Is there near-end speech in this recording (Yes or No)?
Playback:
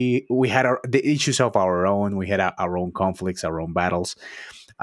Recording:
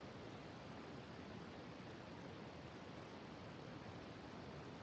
No